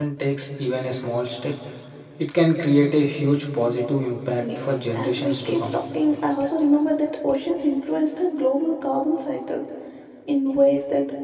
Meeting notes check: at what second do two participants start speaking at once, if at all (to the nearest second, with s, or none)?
4 s